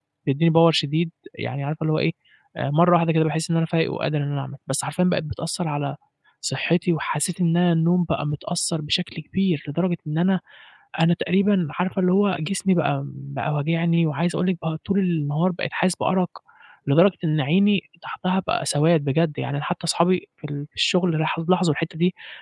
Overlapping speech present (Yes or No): No